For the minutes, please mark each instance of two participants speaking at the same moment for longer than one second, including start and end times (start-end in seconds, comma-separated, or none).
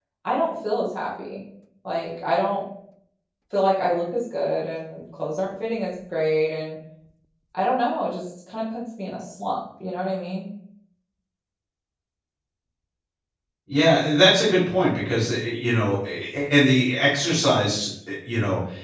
none